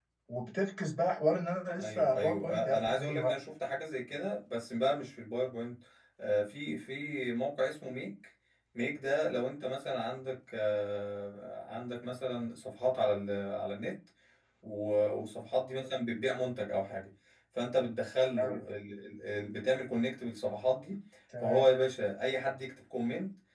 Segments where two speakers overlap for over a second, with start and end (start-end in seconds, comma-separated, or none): 1.8-3.3